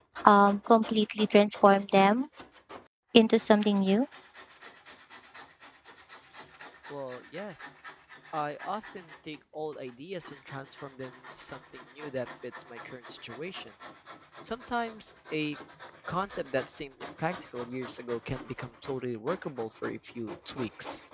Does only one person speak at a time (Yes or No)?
Yes